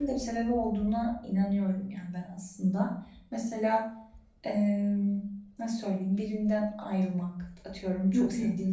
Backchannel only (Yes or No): Yes